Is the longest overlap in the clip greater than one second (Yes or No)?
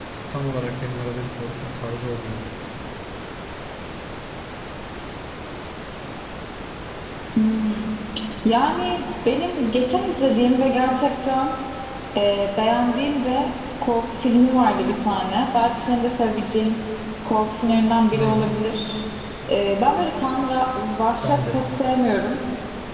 No